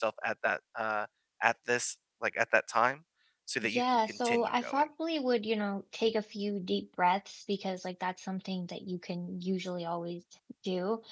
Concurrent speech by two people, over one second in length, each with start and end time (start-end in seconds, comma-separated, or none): 3.6-4.9